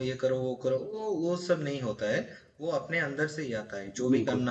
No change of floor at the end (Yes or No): Yes